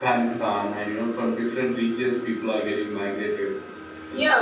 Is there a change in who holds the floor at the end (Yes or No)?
Yes